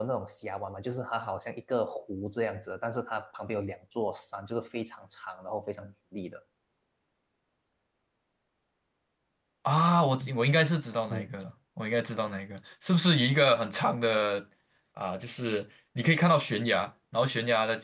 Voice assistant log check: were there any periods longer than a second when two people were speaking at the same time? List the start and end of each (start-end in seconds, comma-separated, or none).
none